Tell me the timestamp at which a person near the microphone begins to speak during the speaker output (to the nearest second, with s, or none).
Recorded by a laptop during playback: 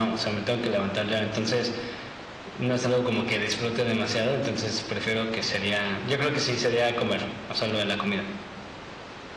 none